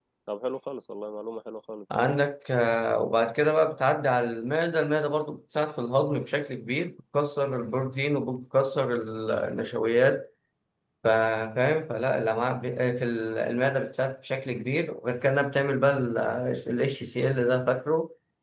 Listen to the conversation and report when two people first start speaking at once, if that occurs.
none

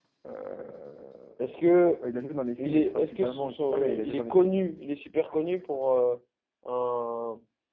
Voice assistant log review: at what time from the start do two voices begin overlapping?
2.6 s

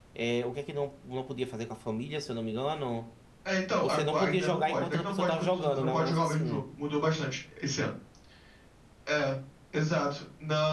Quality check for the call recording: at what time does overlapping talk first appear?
3.8 s

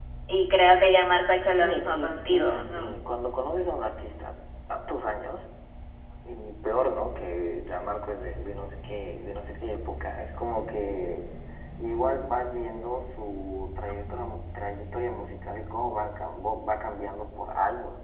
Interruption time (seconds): 1.5 s

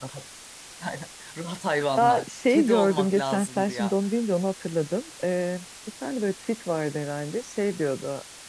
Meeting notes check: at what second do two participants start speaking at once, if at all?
2.0 s

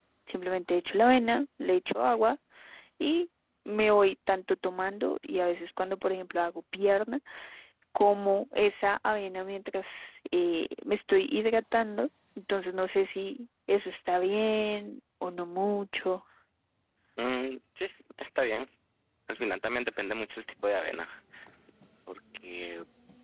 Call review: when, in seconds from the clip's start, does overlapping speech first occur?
none

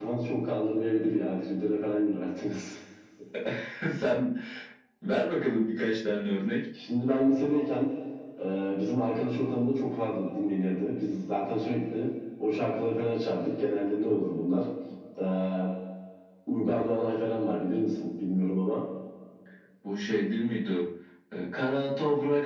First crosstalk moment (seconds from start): none

